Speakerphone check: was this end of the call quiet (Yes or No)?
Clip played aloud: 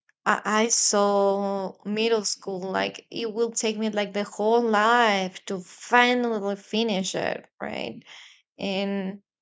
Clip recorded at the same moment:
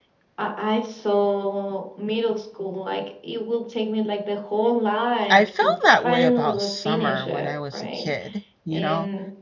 No